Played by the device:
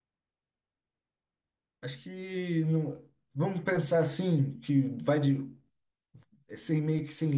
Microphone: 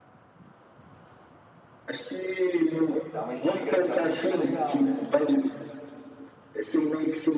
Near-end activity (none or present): present